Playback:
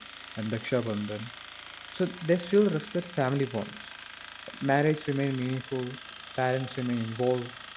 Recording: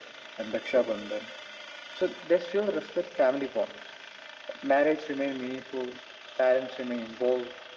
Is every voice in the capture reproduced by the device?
Yes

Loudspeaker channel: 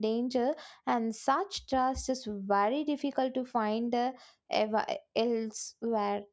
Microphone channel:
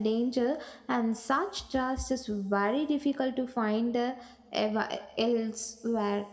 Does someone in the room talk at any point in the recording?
No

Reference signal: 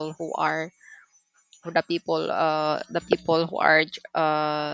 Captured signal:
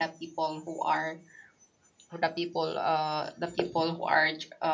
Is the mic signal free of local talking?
Yes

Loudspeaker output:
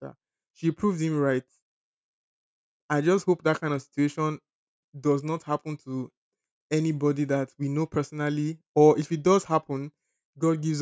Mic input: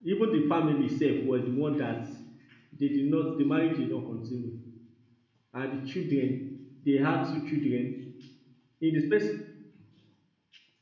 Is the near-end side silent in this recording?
No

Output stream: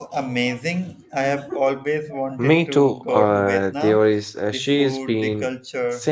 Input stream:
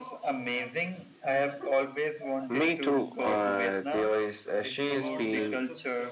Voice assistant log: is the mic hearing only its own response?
No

